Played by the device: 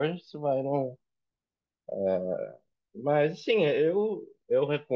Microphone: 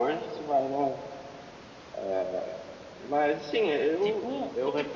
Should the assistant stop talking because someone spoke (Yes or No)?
Yes